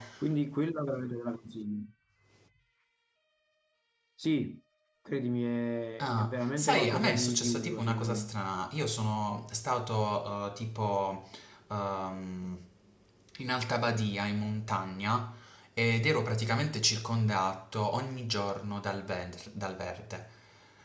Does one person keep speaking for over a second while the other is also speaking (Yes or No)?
Yes